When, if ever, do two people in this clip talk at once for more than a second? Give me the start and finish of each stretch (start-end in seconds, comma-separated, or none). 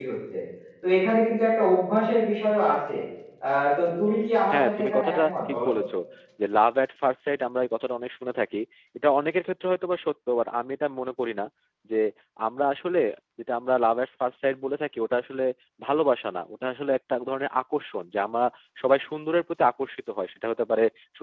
4.5-5.8